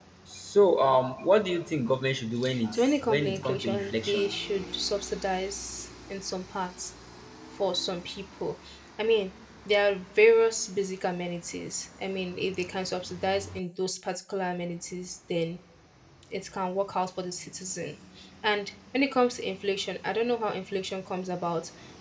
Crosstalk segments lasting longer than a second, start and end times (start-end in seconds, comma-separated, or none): 2.7-4.3